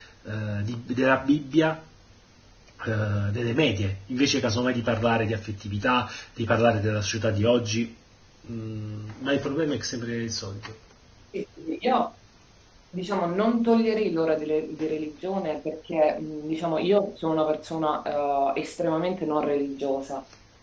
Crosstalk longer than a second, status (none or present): none